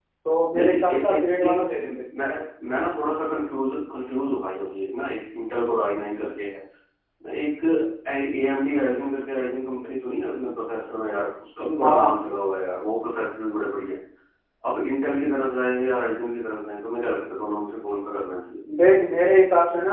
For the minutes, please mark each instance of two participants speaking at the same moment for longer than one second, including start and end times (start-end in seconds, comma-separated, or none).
0.5-1.9